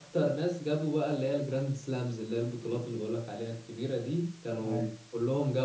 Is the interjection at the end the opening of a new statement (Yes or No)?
No